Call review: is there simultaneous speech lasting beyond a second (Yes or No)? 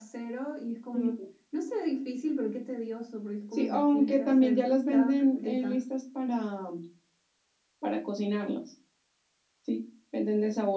Yes